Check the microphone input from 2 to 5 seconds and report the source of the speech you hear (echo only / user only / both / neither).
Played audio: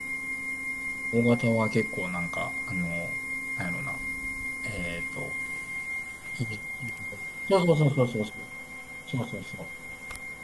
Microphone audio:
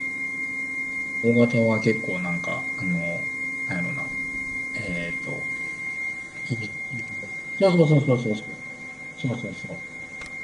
echo only